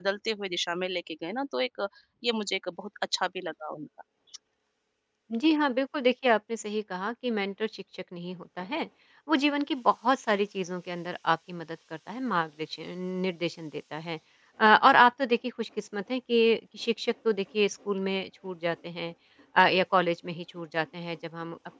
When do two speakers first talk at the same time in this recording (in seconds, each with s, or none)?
none